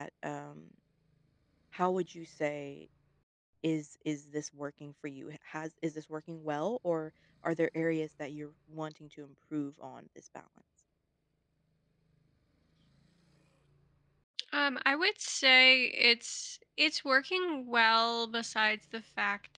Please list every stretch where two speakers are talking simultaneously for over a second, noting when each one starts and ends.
none

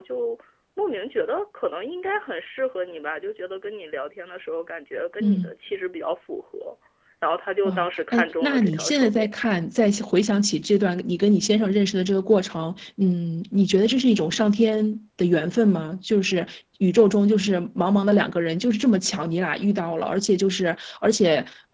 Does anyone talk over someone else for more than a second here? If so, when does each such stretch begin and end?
7.6-9.3

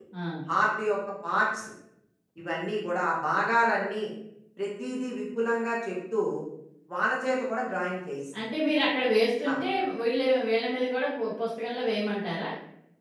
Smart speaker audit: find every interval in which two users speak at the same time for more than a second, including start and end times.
none

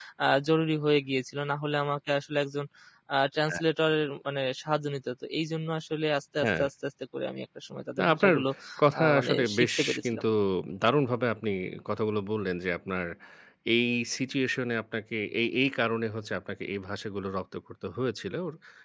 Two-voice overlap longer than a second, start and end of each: 9.0-10.2

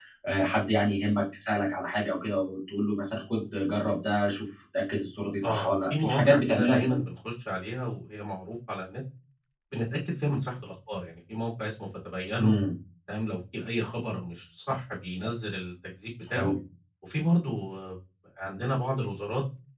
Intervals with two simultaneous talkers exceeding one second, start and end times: 5.4-7.0

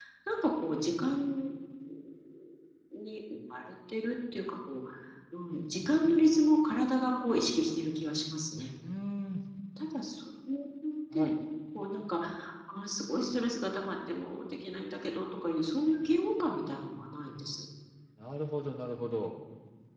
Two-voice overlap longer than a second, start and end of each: none

